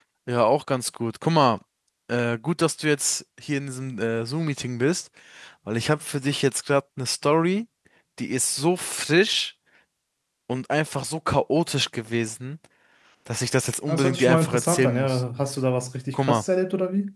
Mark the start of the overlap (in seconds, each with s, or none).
13.9 s